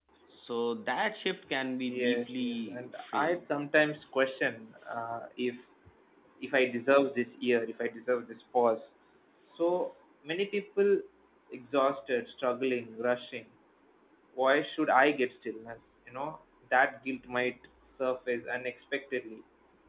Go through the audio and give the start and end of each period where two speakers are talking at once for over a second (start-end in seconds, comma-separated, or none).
1.8-3.4